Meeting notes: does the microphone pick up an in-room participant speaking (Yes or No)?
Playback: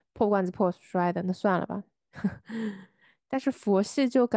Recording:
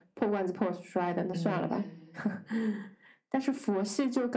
Yes